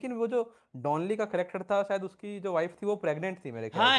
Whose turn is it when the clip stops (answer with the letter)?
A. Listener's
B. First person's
A